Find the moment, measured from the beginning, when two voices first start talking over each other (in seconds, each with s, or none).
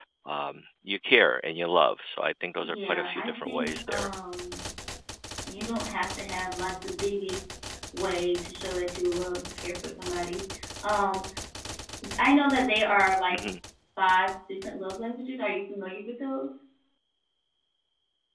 2.6 s